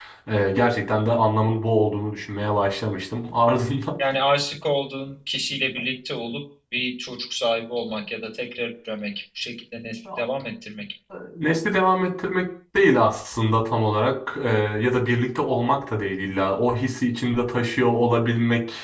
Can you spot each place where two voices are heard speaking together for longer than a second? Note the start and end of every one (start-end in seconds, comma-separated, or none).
none